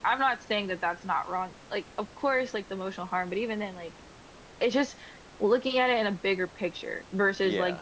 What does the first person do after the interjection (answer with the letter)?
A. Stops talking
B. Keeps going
B